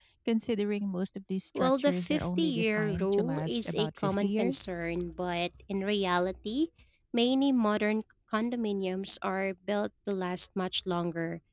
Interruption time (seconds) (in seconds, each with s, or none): 1.6 s